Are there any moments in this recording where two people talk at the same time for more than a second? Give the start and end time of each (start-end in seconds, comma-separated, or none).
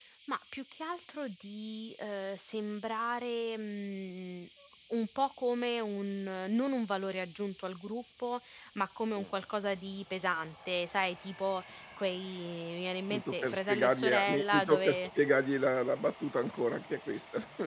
13.1-15.1